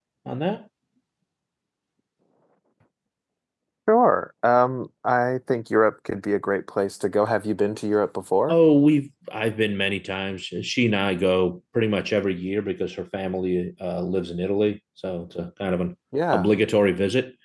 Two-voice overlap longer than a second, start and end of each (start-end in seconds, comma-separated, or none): none